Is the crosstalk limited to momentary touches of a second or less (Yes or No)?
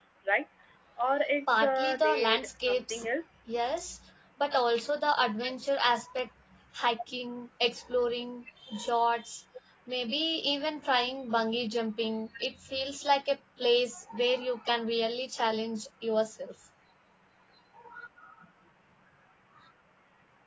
No